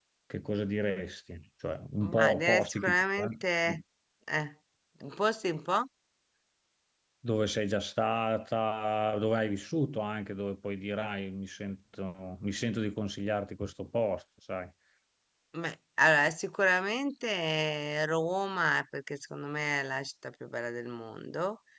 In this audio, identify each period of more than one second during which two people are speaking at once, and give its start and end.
2.0-3.8

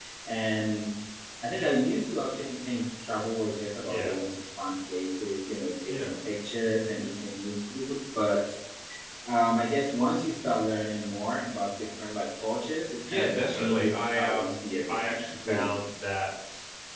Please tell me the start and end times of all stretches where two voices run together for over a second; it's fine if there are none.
13.1-15.7

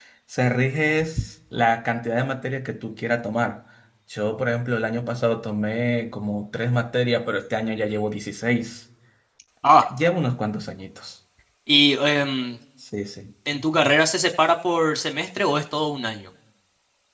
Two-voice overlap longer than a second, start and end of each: none

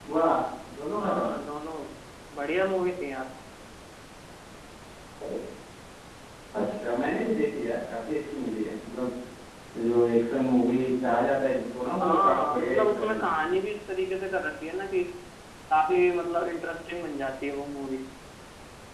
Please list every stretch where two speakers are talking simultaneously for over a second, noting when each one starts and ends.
12.0-13.4

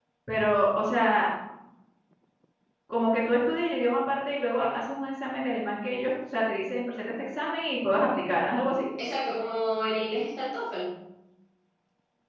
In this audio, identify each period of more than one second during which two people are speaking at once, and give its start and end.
none

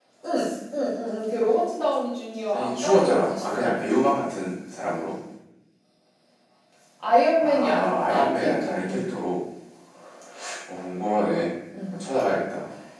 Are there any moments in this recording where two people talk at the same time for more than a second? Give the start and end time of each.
2.5-3.9, 7.4-9.2

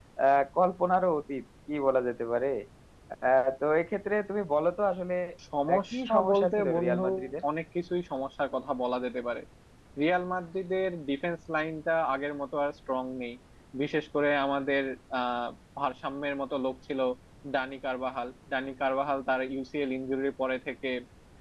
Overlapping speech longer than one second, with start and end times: 5.7-7.0

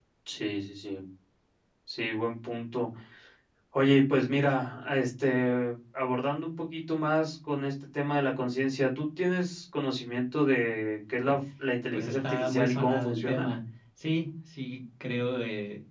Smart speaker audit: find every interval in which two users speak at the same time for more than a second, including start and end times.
11.9-13.5

